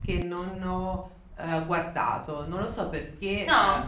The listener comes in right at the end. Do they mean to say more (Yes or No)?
No